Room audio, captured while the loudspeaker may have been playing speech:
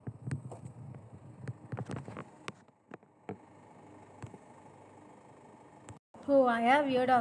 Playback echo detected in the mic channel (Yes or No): No